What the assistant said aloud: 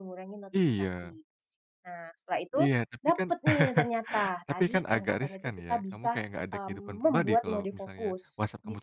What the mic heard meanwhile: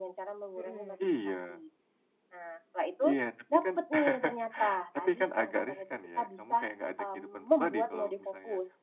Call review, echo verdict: present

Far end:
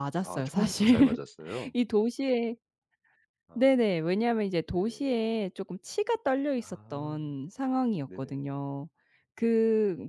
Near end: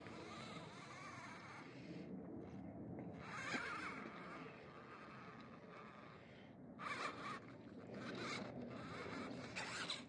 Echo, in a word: none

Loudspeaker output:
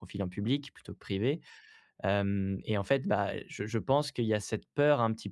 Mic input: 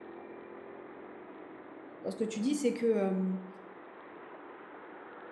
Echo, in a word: none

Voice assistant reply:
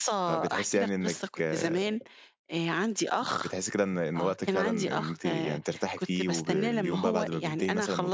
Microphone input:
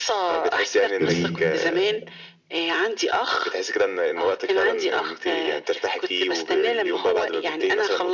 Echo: present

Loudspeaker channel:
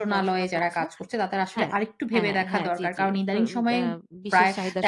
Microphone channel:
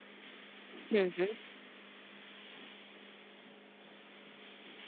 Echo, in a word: none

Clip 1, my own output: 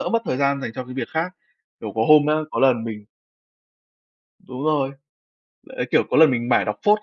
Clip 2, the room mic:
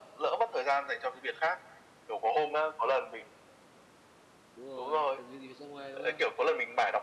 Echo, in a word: present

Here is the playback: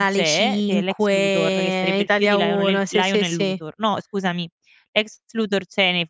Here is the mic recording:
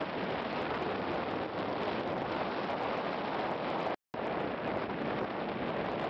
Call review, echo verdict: none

